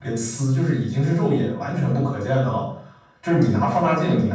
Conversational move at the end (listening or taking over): listening